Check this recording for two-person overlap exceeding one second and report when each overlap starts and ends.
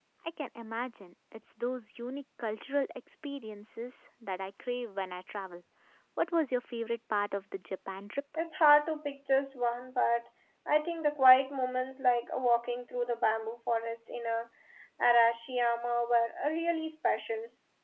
none

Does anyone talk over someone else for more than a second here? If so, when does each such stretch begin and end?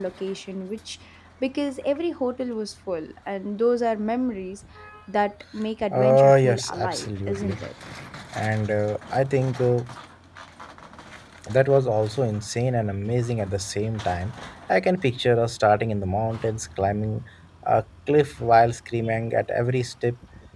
5.9-7.6

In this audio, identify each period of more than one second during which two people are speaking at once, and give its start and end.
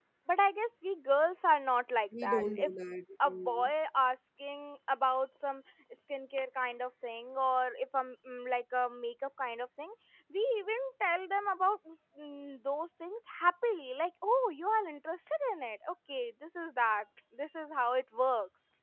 none

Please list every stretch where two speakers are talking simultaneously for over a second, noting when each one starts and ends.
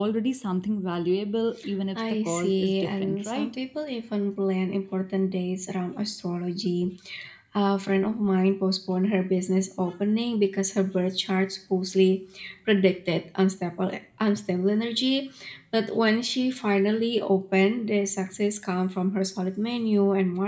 2.2-3.5

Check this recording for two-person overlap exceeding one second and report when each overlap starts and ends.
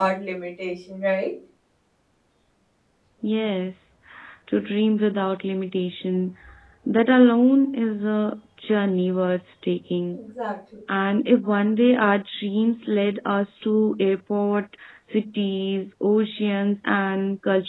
none

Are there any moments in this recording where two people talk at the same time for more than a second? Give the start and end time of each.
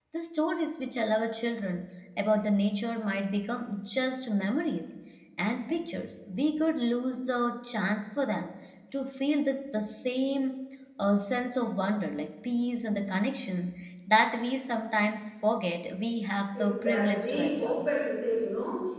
16.6-17.9

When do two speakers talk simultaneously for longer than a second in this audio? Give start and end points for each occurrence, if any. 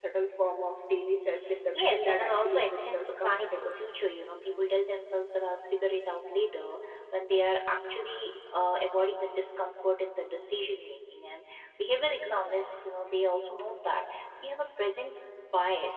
1.7-3.7

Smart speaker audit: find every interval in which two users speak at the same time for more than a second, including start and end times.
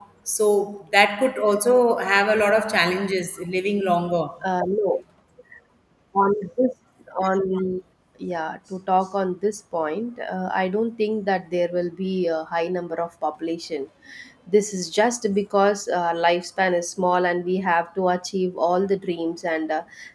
none

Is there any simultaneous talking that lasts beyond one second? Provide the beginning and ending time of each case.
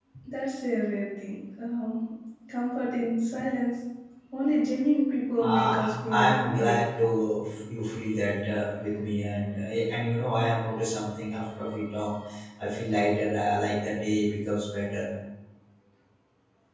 5.4-6.8

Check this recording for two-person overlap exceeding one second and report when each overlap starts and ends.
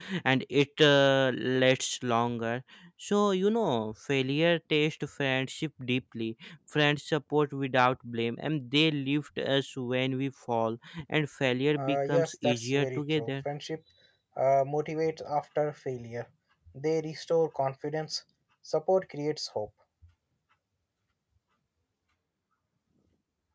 11.8-13.3

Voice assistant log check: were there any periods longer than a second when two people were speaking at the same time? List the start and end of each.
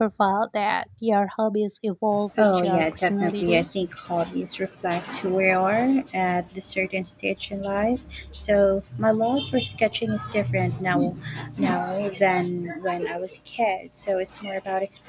2.4-3.7

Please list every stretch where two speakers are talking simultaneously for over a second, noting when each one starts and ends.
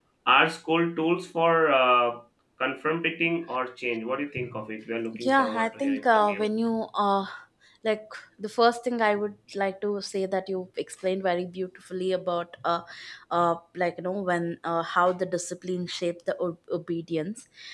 5.1-6.5

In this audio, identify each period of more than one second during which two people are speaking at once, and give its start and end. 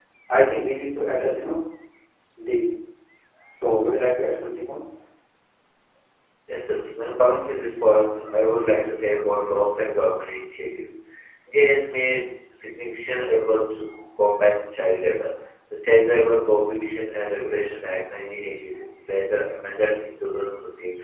none

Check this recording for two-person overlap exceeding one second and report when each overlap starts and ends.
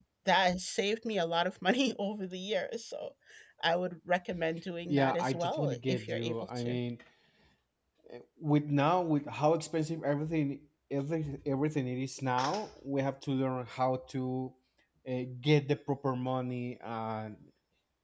4.9-6.8

